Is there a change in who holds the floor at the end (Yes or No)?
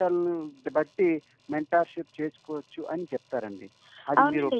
Yes